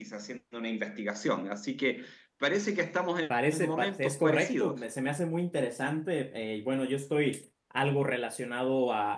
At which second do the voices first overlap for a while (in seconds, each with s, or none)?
3.5 s